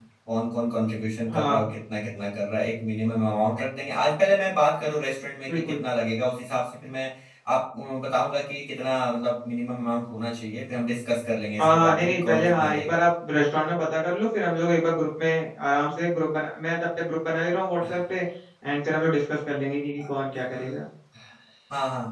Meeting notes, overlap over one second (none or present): present